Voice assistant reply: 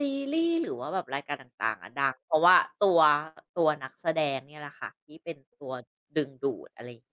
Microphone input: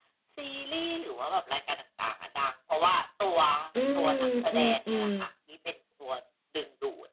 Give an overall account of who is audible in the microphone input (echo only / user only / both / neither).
both